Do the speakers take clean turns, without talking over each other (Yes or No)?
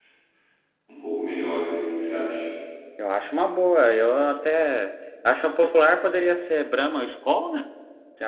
Yes